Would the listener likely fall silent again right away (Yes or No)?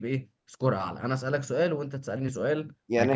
No